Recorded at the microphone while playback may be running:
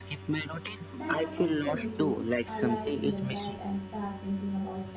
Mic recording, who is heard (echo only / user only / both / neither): both